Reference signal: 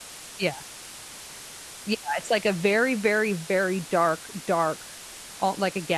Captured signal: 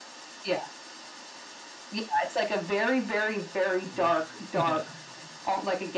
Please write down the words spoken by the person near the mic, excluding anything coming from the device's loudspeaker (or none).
mhm. Yeah,